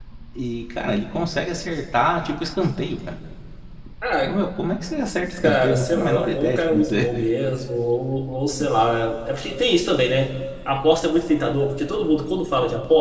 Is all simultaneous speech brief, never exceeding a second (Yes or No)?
No